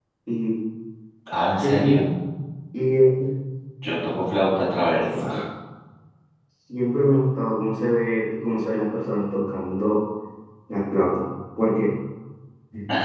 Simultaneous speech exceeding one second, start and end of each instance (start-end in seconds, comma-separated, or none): none